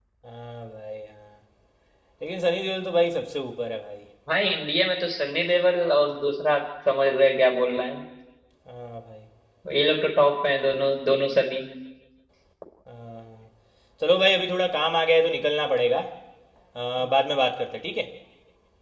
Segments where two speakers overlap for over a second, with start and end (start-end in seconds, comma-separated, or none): none